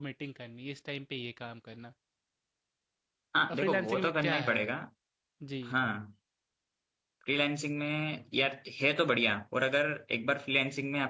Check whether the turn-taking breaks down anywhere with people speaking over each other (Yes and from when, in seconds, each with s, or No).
Yes, from 3.5 s